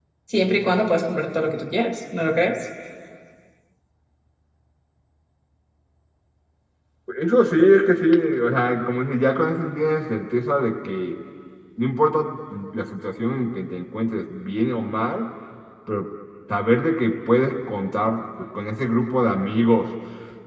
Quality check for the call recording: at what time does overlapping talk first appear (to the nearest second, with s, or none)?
none